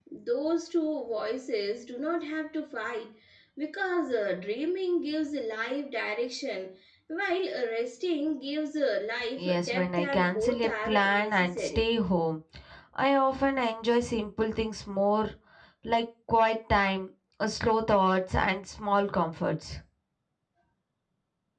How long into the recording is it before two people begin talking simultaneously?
9.4 s

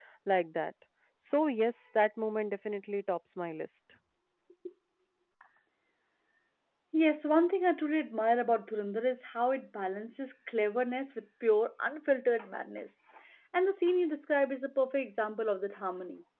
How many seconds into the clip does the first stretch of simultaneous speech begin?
none

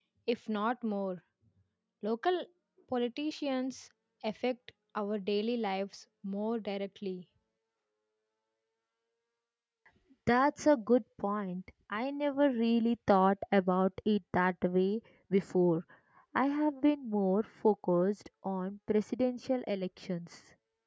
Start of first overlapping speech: none

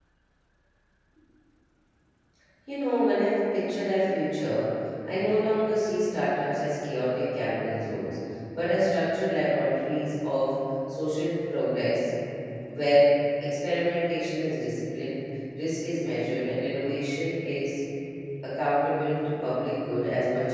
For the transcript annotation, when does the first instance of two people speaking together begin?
none

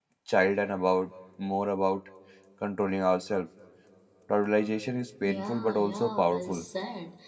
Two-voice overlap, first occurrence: 5.2 s

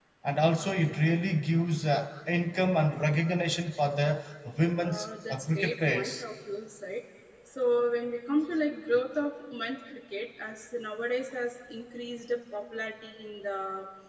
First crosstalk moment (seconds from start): 4.8 s

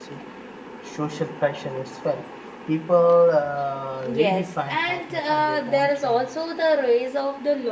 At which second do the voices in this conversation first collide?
3.9 s

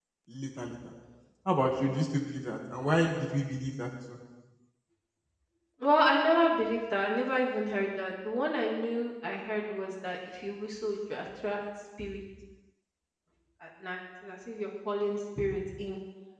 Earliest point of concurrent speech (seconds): none

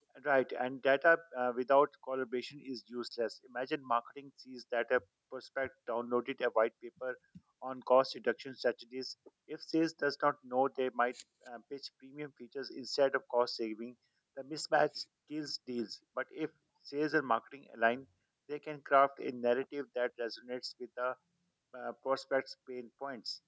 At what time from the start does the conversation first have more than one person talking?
none

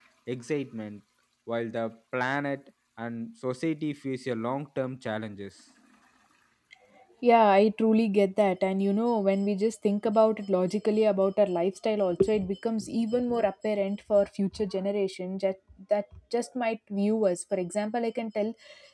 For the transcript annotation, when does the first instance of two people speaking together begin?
none

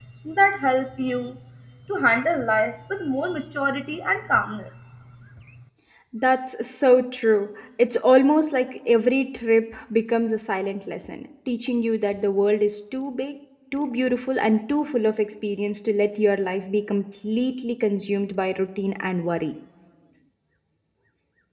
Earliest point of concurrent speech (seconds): none

